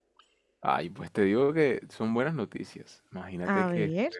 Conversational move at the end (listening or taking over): listening